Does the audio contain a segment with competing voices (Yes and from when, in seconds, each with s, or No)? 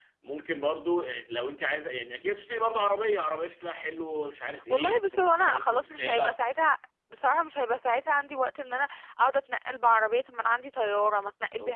Yes, from 4.5 s